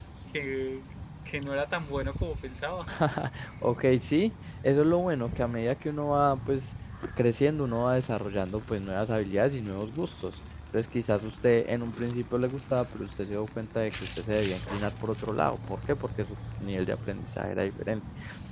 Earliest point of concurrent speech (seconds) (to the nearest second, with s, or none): none